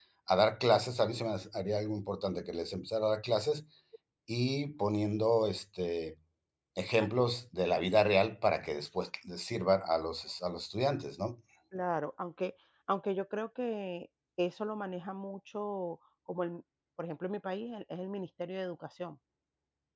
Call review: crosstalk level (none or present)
none